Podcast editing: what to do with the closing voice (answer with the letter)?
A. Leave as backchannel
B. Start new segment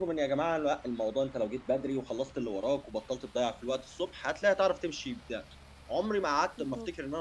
A